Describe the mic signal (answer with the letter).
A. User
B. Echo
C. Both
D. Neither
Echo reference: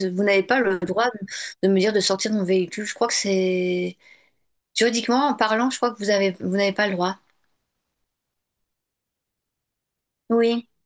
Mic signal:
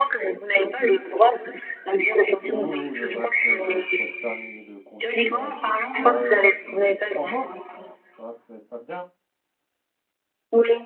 C